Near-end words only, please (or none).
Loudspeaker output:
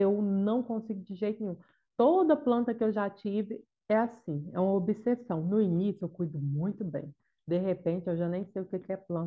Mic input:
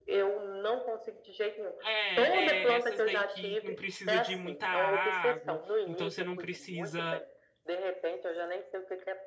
É, é, essas daí que não precisa de muita água, então você não precisa,